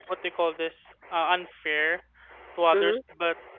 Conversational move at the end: listening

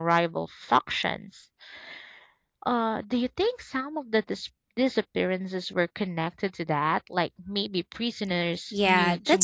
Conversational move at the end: taking over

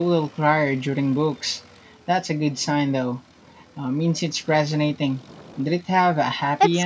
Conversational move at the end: taking over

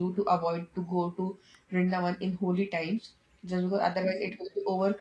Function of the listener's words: listening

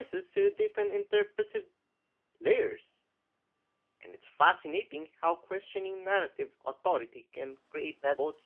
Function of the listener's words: taking over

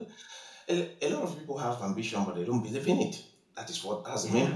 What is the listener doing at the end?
taking over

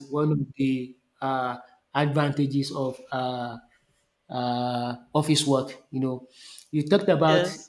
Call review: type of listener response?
listening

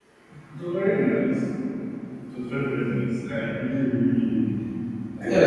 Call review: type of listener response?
taking over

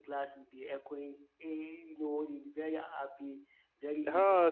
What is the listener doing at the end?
taking over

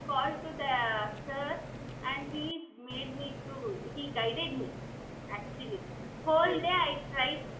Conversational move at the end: listening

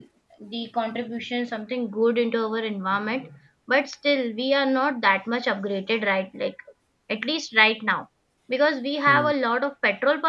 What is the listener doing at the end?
listening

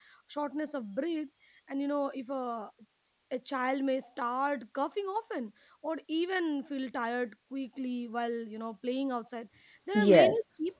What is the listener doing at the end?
listening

